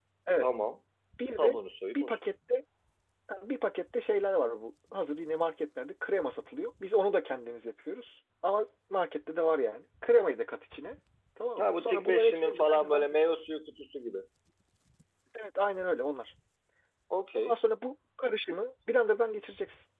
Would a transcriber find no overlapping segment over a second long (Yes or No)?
No